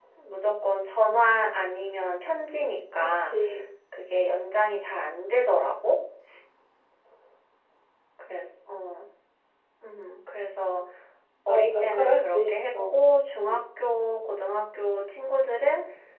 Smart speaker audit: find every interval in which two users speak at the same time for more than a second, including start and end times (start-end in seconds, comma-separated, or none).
11.5-12.7